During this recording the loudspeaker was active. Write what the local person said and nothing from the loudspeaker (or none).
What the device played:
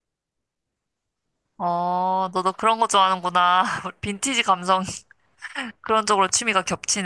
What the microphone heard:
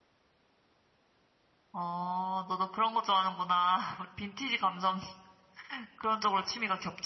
none